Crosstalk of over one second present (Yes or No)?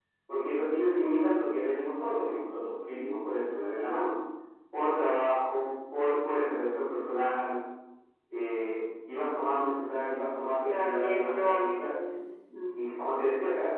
Yes